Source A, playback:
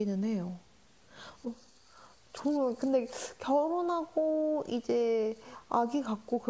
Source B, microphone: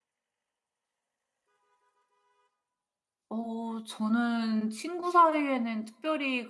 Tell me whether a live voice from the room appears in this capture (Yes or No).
Yes